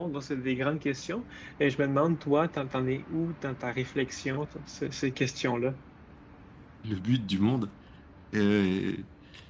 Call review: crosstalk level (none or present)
none